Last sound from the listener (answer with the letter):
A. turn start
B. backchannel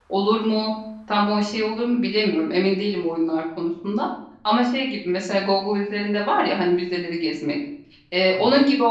B